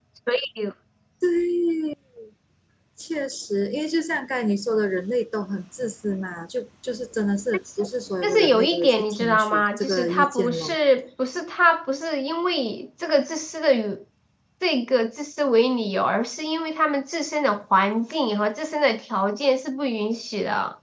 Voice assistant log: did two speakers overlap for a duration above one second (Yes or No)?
Yes